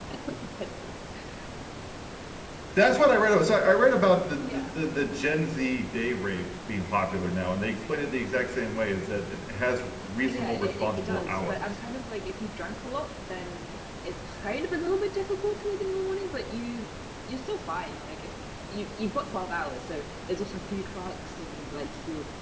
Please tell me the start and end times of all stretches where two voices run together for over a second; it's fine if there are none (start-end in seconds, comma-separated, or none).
10.3-11.6